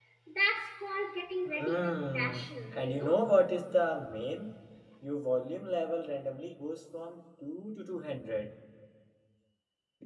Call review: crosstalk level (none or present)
present